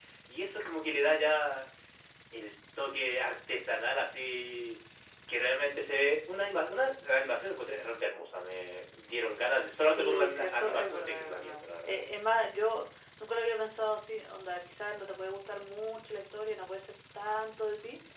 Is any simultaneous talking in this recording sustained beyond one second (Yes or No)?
Yes